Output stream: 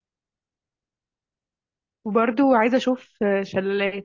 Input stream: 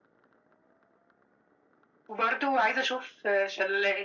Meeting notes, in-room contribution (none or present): none